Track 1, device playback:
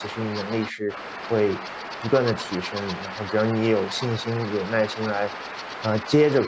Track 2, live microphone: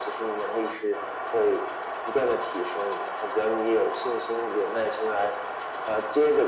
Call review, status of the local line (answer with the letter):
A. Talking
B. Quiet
B